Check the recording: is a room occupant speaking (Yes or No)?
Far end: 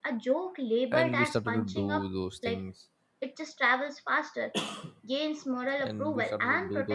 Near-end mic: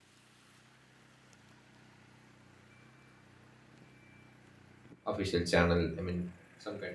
Yes